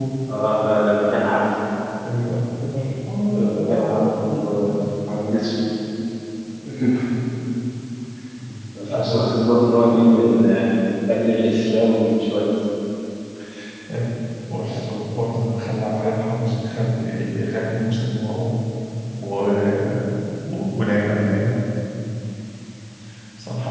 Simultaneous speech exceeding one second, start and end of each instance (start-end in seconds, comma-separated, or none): 3.3-4.8